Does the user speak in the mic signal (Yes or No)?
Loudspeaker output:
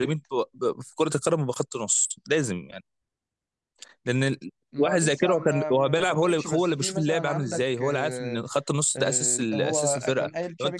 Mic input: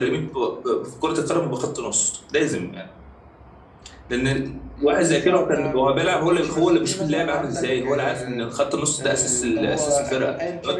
No